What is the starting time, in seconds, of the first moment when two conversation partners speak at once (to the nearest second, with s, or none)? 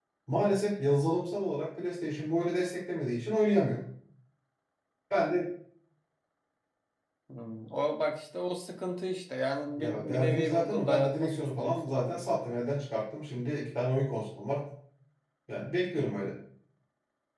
10 s